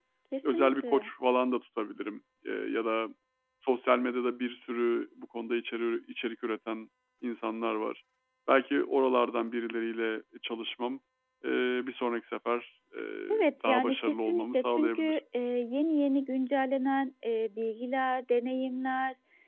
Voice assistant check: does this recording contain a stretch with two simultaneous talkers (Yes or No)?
Yes